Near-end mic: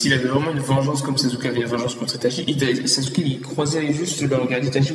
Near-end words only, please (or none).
none